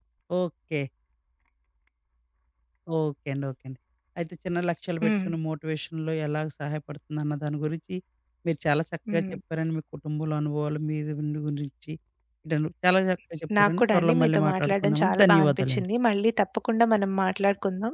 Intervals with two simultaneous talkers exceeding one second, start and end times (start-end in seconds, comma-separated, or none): 13.6-15.8